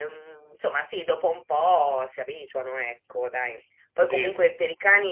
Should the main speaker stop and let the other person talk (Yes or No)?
No